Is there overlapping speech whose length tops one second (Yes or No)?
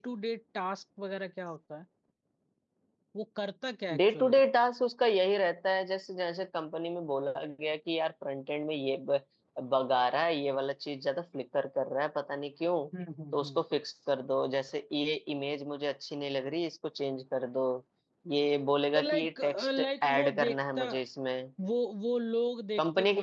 Yes